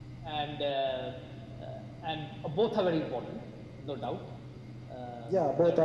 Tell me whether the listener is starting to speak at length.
Yes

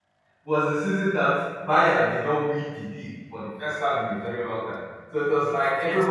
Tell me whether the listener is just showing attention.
Yes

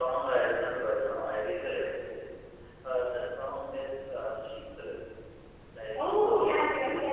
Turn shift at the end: Yes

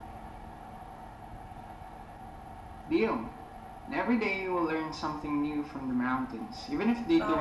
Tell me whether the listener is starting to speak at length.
Yes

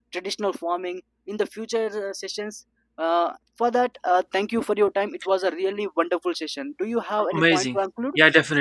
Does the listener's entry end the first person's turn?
Yes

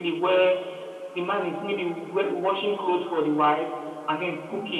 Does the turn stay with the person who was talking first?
Yes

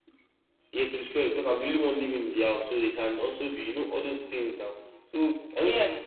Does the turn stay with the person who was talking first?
Yes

